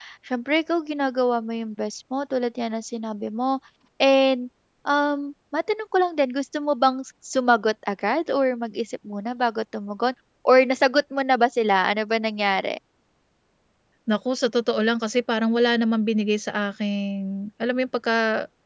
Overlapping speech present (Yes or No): No